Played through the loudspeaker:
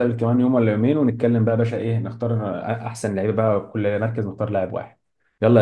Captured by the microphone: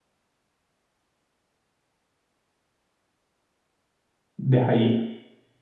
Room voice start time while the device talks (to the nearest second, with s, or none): 4 s